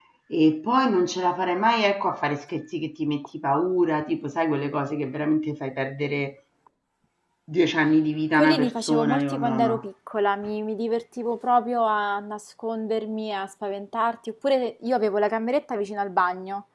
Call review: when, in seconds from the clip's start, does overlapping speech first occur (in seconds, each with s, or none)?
8.3 s